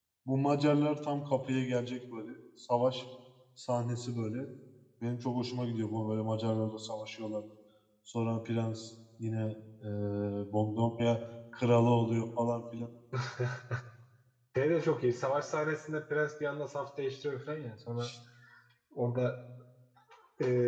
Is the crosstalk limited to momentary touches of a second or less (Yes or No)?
Yes